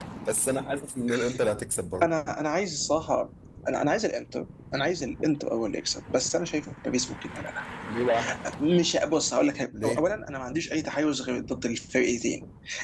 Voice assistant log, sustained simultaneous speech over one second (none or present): none